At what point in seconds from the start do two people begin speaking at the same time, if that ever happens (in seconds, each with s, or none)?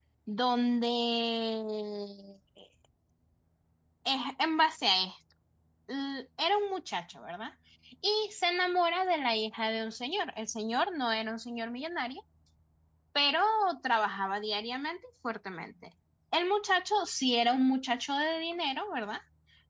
none